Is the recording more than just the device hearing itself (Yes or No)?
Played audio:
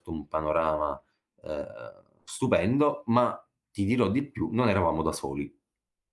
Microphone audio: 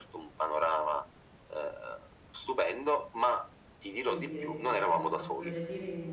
Yes